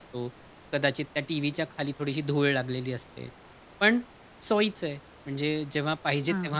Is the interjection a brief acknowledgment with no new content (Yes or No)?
Yes